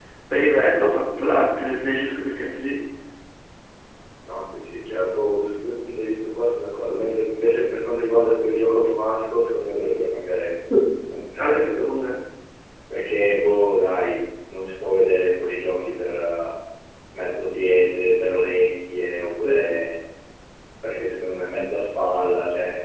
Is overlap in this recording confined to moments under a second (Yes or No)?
Yes